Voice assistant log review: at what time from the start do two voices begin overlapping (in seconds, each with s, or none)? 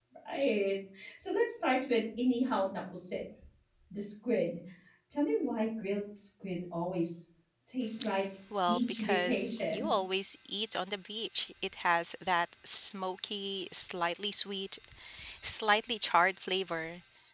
8.5 s